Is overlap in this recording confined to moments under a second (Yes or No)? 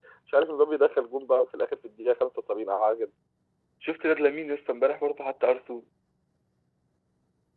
Yes